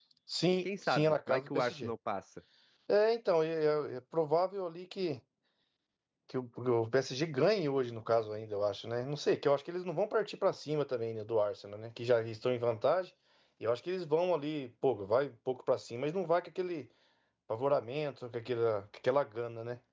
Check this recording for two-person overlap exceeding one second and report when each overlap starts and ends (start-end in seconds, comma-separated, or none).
0.6-1.9